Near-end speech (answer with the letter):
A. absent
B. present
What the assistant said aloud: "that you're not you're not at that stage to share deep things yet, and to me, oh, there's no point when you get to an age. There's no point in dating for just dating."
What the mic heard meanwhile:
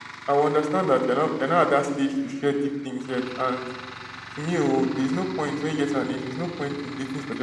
A